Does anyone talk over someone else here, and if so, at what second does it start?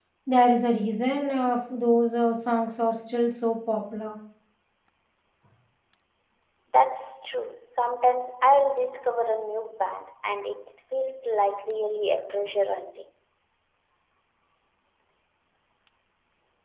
none

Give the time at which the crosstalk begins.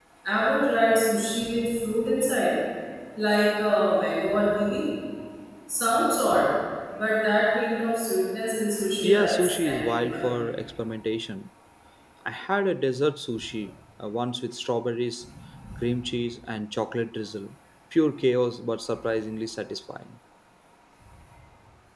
9.0 s

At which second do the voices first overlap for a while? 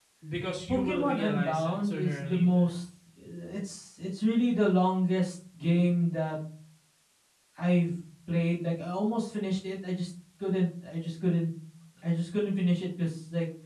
0.7 s

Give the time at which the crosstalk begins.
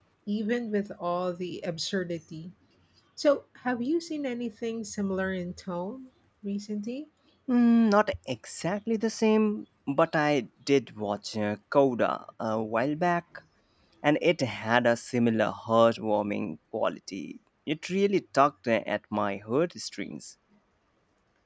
none

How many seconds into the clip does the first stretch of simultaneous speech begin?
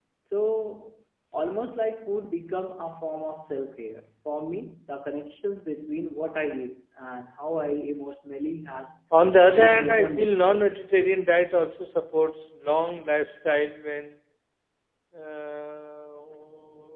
9.5 s

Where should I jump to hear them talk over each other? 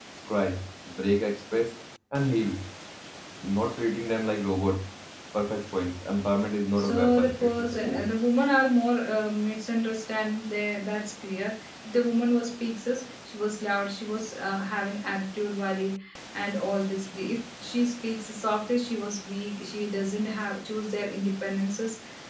6.8 s

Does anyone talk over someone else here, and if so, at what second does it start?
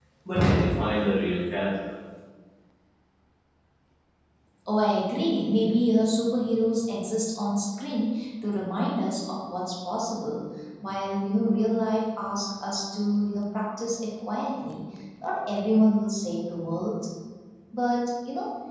none

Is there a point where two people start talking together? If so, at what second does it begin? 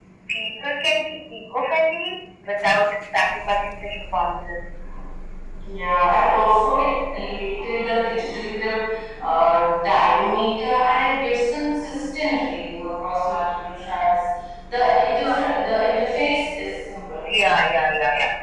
none

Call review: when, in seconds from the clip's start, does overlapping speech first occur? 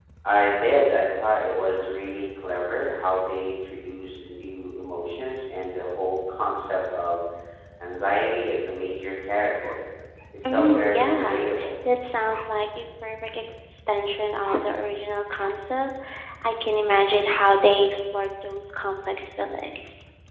10.5 s

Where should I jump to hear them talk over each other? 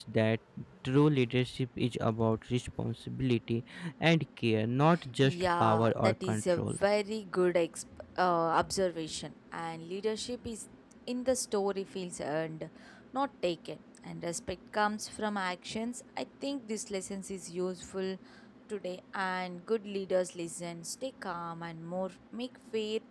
5.2 s

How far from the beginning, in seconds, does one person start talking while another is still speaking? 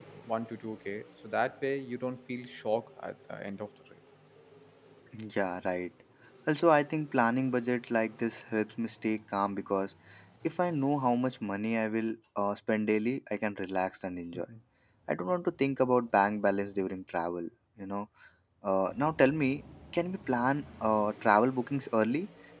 none

